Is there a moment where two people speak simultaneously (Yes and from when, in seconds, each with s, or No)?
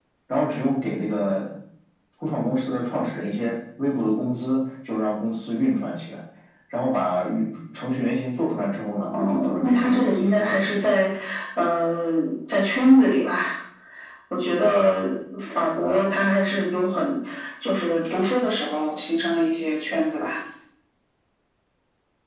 Yes, from 9.1 s